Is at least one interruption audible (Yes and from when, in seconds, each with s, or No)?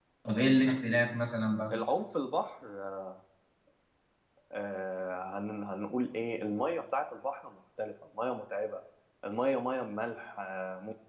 No